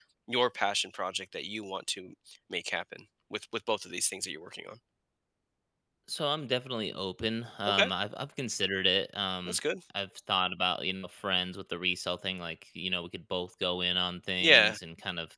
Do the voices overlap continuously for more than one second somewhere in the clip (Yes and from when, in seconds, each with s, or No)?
No